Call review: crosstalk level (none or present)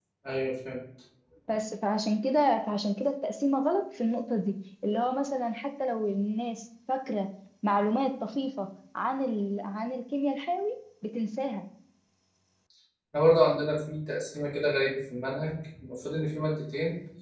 none